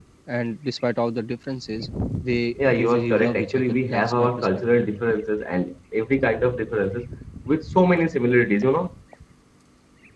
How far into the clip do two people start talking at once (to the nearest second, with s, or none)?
3 s